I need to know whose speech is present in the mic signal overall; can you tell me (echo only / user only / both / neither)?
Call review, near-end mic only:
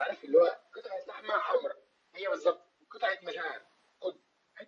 echo only